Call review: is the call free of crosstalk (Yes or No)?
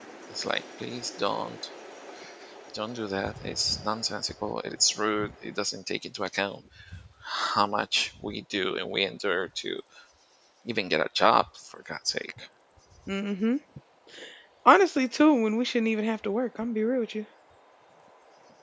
Yes